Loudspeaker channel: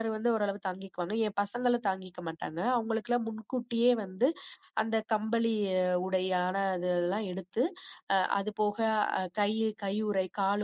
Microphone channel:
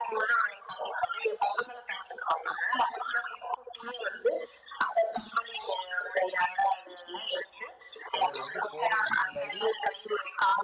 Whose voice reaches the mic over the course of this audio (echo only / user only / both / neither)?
both